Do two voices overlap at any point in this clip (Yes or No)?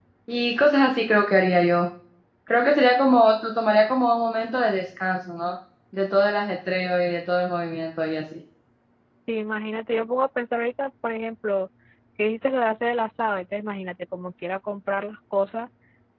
No